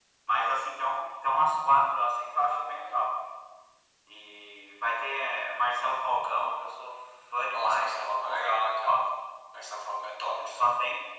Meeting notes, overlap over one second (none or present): present